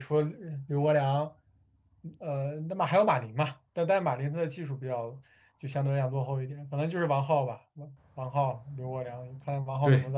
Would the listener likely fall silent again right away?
No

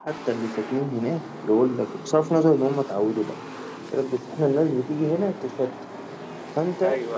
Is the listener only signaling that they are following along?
Yes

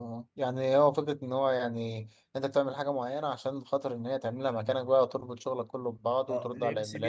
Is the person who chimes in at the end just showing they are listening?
No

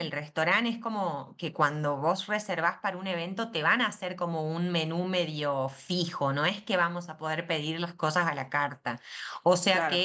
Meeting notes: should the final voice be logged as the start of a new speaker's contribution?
No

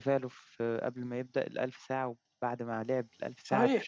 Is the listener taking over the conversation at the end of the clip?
Yes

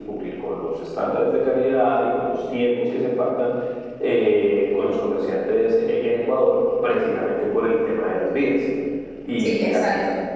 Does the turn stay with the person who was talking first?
No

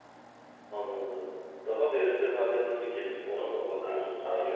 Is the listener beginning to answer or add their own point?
Yes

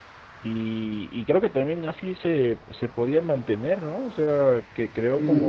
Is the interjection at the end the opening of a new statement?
Yes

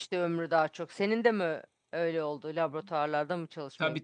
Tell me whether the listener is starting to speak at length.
Yes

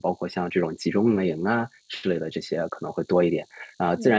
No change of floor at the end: Yes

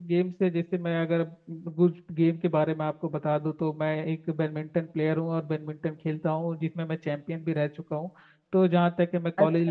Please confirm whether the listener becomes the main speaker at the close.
Yes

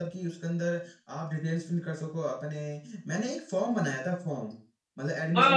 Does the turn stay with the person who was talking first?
No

